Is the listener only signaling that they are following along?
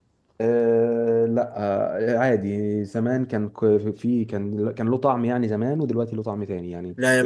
No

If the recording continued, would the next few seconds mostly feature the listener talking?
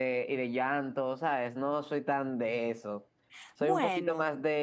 No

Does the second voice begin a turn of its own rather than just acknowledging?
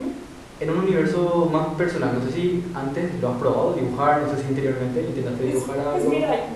Yes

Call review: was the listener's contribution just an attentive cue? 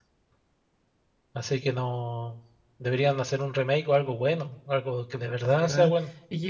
No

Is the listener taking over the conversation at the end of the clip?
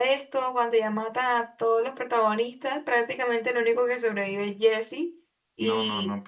Yes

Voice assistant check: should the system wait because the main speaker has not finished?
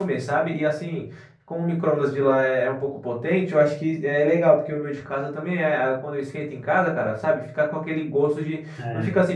Yes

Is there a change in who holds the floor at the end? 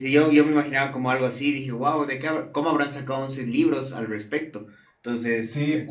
Yes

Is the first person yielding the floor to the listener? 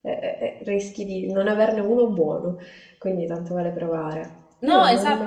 Yes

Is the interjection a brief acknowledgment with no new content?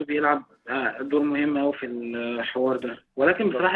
Yes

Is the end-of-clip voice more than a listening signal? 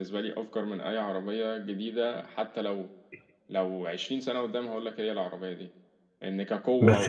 No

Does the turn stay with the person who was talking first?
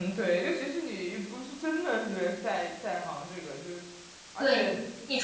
No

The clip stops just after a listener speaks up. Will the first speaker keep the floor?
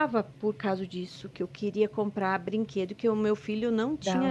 Yes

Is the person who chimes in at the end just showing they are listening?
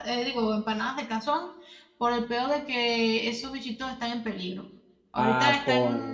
Yes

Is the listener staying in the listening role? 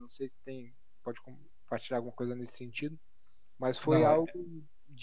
Yes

